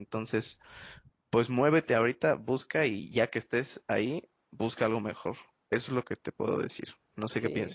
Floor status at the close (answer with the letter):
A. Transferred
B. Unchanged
A